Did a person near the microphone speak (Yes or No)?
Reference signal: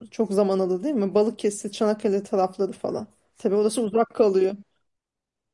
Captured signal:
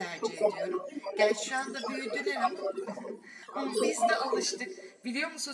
Yes